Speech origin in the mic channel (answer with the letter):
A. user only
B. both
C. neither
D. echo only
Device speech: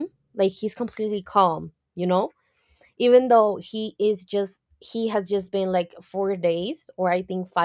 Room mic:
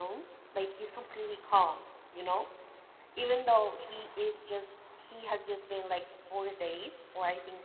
D